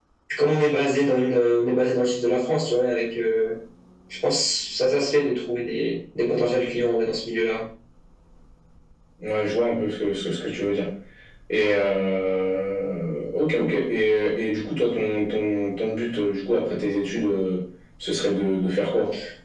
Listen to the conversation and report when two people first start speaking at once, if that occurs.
none

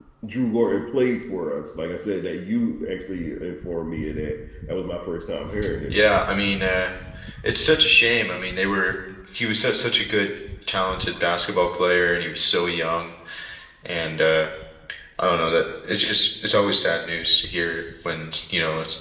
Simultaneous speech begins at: none

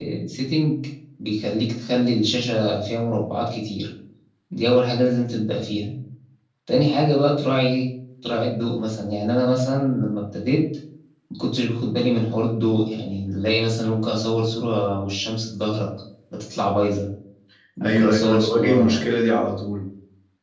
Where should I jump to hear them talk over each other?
17.8 s

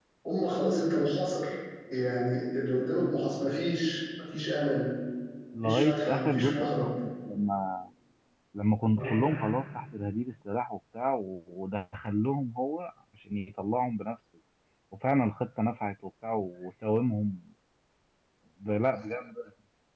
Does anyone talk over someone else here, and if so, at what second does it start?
5.6 s

